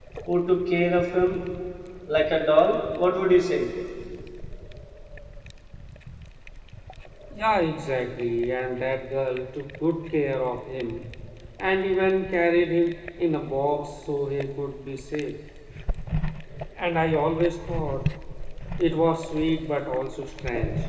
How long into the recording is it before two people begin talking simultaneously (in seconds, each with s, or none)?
none